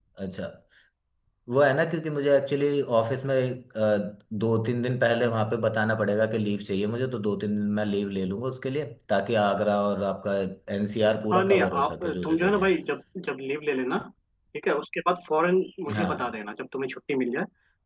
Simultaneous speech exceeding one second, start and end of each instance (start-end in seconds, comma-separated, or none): 11.3-12.7